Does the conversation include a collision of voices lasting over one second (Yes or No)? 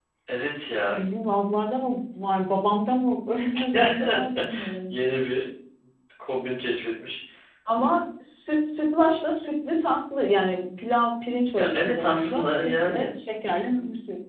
Yes